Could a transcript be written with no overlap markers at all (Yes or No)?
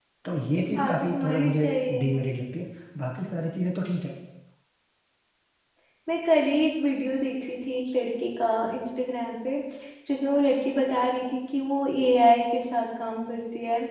No